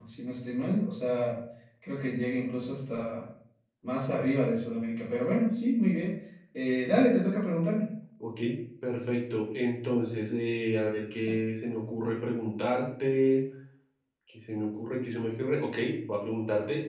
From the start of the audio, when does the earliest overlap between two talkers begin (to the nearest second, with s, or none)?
none